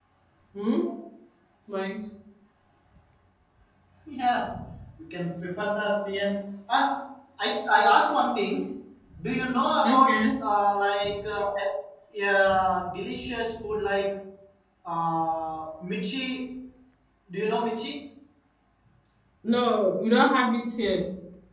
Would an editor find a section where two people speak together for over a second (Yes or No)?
No